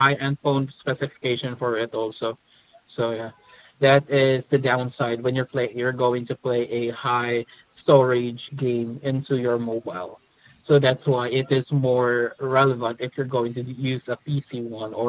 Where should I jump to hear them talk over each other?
none

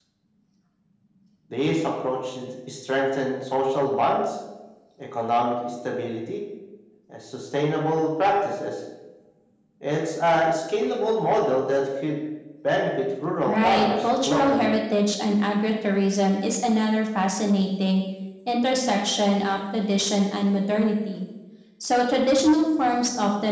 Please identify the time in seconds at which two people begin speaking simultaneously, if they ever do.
13 s

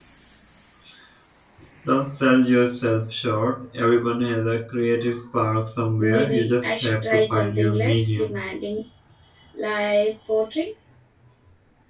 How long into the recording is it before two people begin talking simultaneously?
6 s

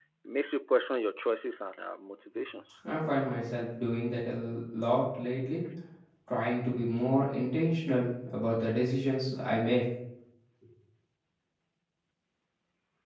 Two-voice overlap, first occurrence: none

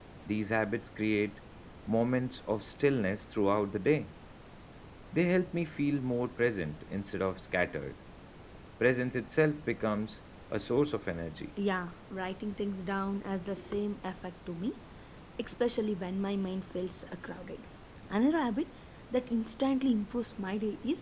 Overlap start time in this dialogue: none

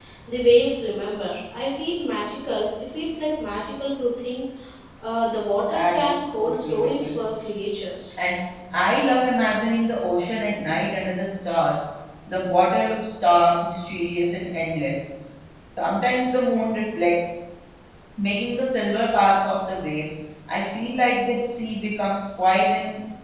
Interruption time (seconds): 6 s

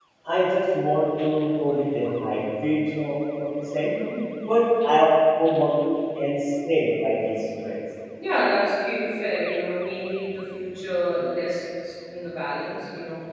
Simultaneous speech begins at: none

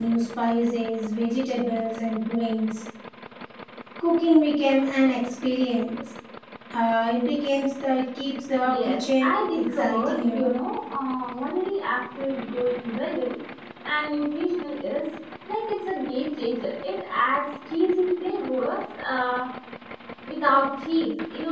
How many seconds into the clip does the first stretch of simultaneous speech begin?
9 s

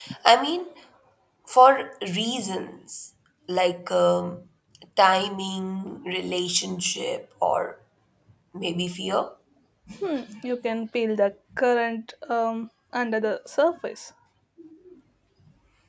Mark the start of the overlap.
none

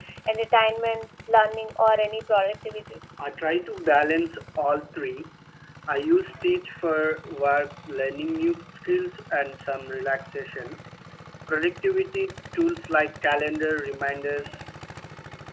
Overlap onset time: none

